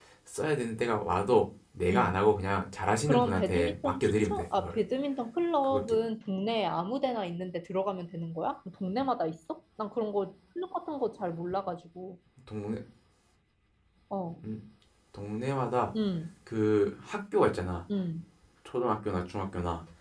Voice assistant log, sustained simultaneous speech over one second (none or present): present